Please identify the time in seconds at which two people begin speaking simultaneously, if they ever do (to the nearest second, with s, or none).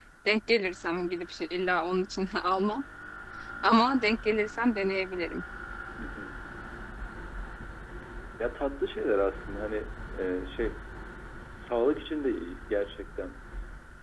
none